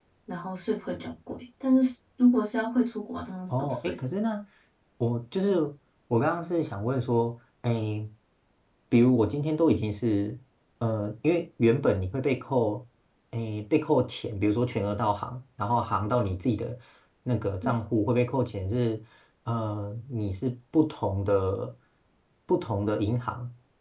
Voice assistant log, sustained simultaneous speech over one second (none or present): none